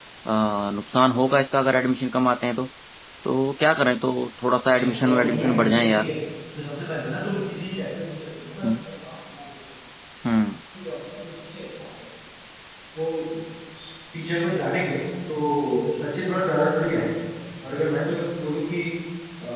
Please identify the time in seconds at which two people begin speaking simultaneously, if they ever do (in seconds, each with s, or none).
4.7 s